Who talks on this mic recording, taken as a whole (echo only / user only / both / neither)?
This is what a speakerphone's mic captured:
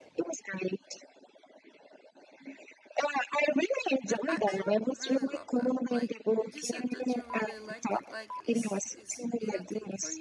both